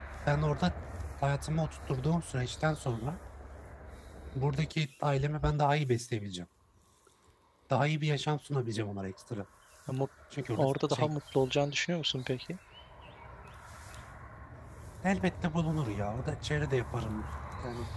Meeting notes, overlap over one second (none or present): none